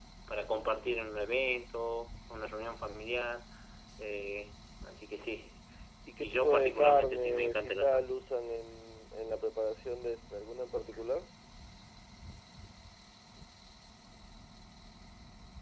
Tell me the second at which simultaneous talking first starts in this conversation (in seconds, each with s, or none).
6.2 s